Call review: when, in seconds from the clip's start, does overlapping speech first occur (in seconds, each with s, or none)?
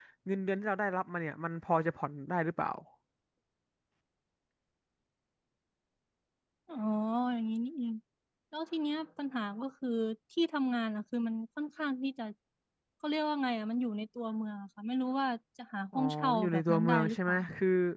15.9 s